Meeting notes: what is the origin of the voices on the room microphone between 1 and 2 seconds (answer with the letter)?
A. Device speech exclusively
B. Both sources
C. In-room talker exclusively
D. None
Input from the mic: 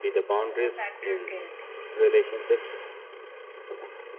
B